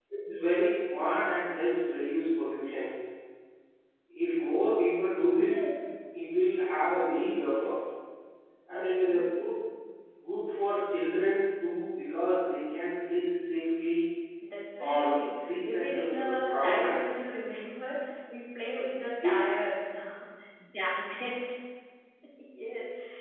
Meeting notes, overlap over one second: present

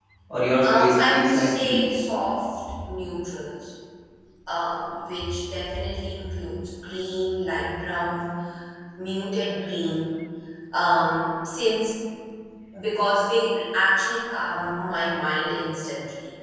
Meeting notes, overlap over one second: present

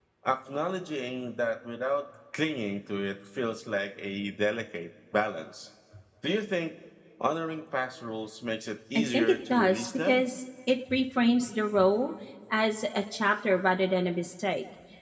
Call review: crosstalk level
present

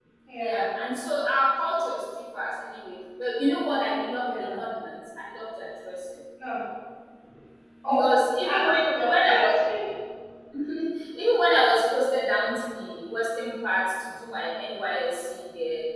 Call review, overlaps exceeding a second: present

